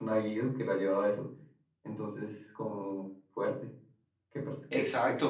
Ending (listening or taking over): taking over